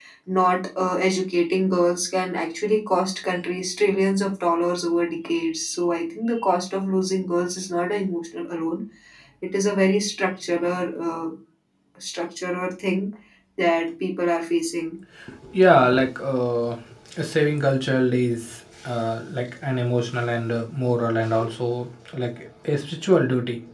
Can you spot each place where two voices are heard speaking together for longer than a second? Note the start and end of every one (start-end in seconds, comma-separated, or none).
none